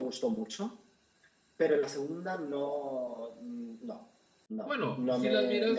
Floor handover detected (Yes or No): Yes